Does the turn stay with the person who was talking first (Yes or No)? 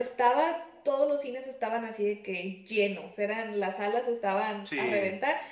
Yes